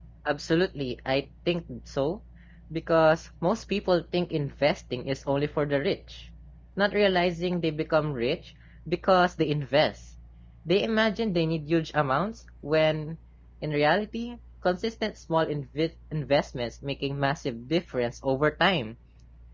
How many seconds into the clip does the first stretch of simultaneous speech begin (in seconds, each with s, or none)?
none